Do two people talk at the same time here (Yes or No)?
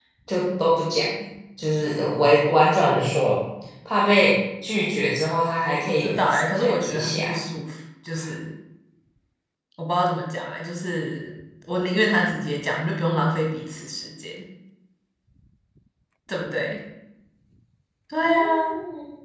Yes